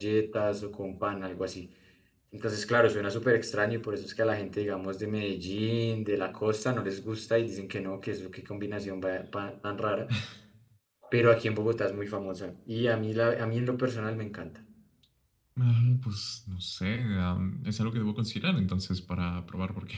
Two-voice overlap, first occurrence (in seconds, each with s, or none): none